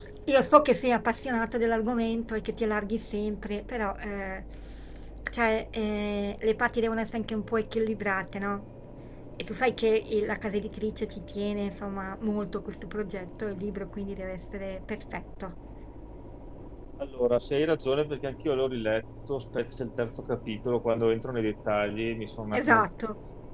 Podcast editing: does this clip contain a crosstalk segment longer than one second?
No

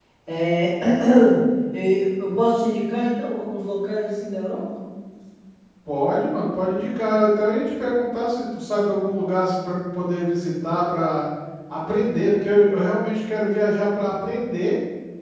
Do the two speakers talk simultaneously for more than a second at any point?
No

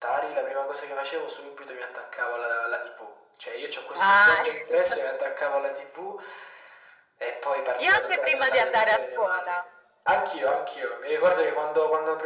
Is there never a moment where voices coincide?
No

